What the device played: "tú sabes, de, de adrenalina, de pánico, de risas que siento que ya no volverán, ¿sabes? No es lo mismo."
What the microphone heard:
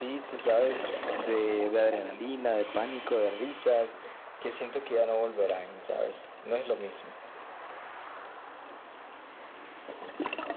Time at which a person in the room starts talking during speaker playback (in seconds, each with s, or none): none